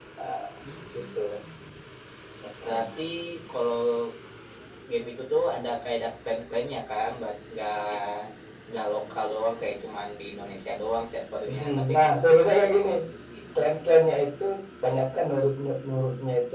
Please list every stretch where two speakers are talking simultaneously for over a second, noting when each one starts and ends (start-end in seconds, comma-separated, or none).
11.5-12.9